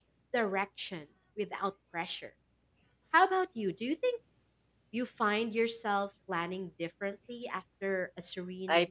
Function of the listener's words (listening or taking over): taking over